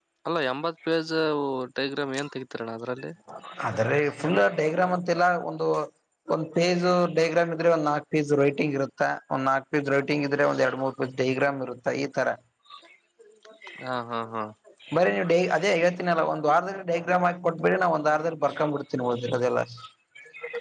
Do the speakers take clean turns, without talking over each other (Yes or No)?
Yes